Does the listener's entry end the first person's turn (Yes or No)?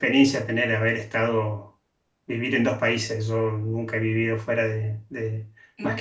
No